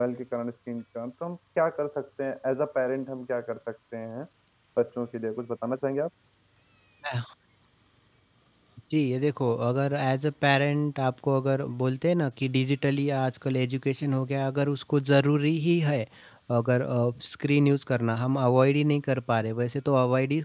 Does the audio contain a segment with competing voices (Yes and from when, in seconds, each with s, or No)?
No